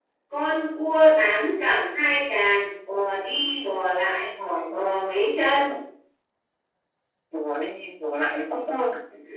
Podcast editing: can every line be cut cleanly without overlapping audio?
Yes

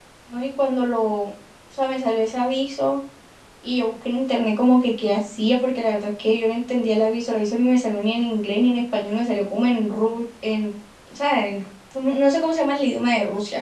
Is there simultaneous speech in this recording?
No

